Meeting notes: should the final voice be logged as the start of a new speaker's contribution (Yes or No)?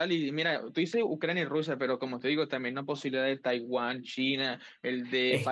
Yes